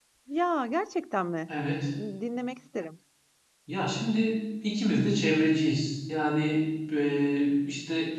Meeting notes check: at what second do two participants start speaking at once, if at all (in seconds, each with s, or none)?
none